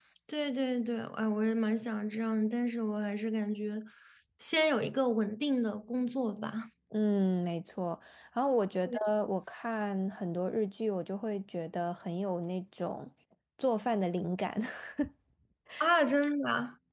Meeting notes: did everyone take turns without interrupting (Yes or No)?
Yes